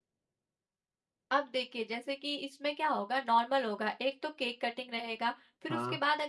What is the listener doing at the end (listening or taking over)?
listening